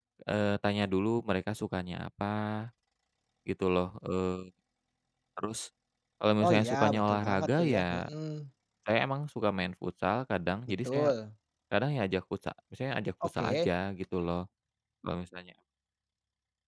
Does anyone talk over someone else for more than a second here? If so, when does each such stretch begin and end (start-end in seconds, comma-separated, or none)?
6.4-8.0